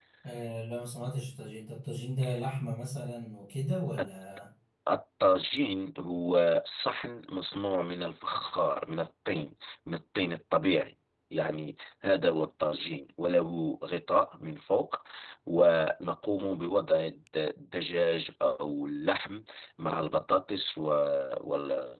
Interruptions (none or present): none